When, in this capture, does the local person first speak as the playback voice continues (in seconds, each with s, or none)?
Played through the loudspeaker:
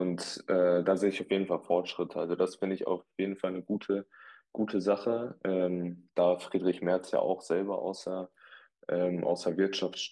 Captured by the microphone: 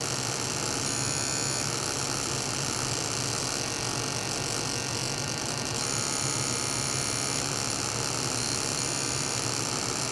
none